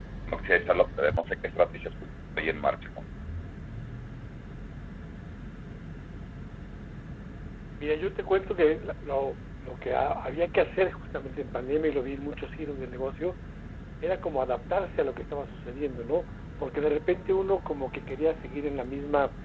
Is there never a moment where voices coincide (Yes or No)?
Yes